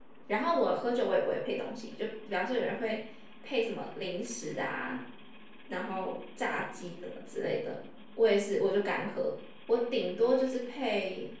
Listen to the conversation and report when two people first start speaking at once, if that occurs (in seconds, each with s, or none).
none